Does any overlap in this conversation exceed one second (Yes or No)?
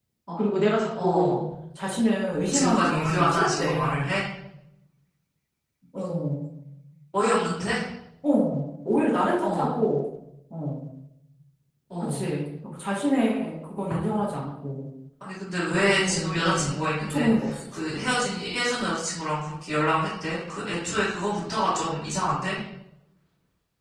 Yes